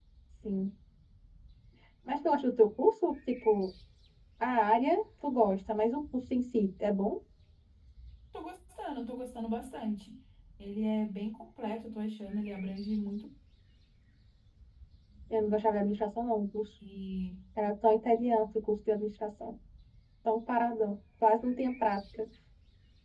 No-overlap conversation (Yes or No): Yes